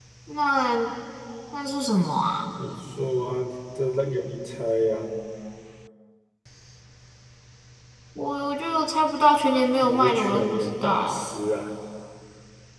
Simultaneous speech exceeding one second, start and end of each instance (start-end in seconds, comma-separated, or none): 9.8-11.3